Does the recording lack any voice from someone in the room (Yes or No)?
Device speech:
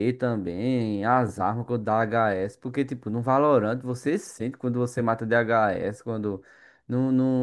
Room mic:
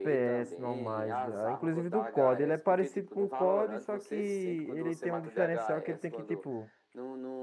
No